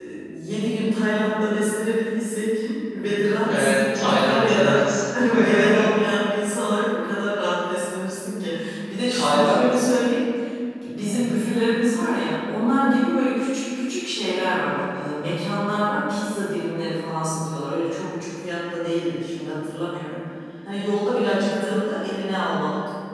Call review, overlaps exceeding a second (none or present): present